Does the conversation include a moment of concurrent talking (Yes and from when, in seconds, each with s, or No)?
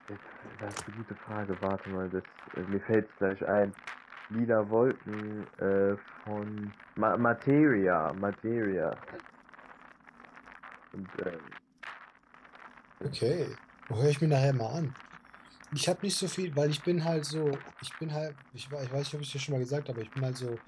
No